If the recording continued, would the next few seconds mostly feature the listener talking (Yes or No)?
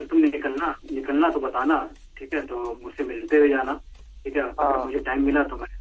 No